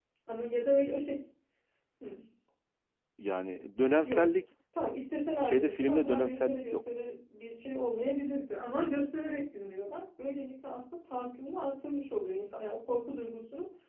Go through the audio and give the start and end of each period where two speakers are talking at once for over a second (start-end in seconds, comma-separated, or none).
5.4-6.9